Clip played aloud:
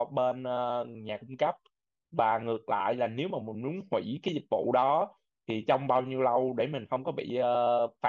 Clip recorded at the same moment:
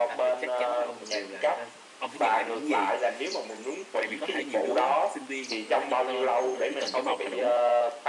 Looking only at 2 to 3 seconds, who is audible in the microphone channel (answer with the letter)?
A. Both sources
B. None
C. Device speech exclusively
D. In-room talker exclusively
A